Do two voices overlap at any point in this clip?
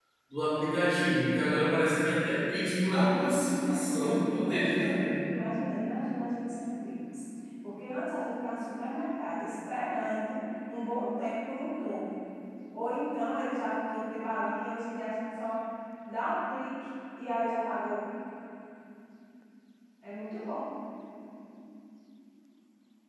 Yes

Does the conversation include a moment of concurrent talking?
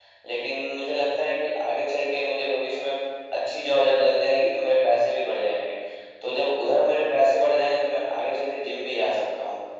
No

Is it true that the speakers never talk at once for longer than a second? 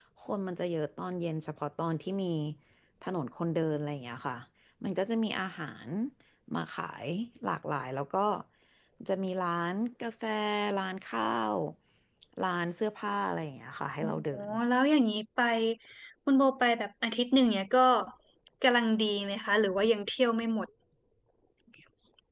Yes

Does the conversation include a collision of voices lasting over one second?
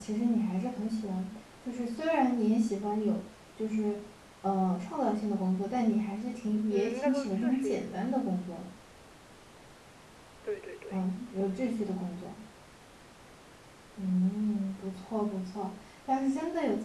Yes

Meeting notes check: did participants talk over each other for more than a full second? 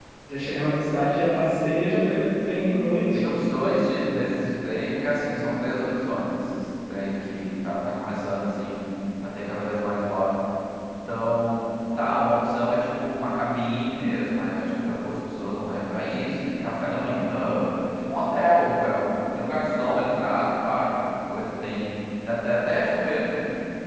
No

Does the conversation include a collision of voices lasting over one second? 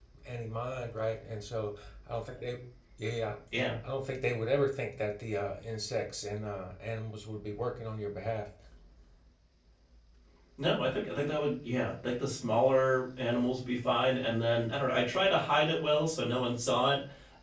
No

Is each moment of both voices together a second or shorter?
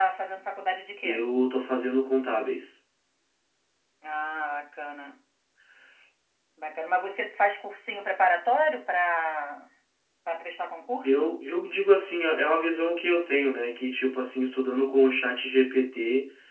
Yes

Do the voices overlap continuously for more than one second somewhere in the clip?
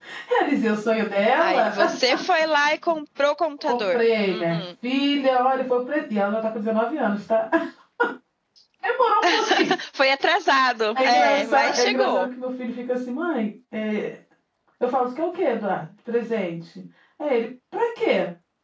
Yes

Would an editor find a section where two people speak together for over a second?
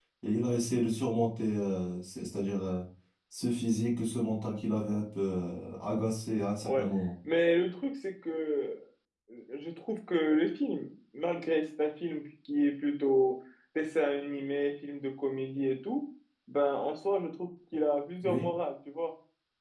No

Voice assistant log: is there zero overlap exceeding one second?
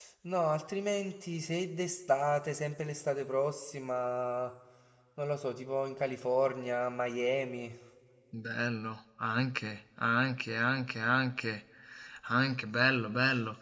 Yes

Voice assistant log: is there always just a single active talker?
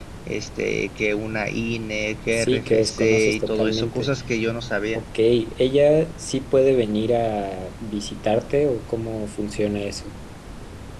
No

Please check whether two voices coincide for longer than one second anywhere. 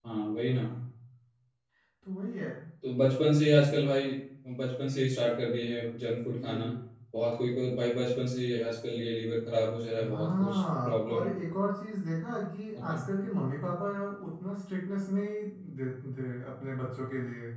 Yes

